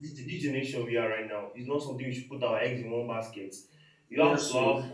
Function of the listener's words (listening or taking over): listening